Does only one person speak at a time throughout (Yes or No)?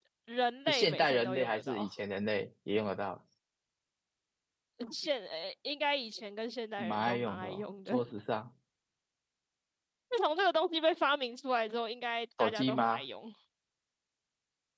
No